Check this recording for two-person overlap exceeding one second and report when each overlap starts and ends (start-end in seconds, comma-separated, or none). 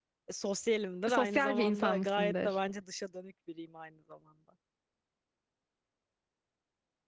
1.1-2.5